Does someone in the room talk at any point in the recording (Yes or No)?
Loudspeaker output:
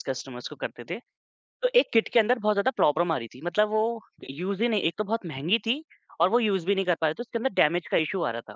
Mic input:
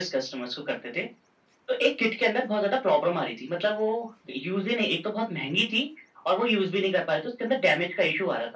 No